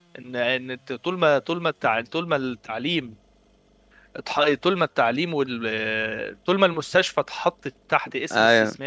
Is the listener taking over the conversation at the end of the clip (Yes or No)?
No